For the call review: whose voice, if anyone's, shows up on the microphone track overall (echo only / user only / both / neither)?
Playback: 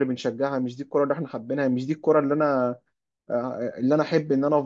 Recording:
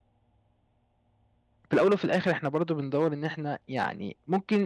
user only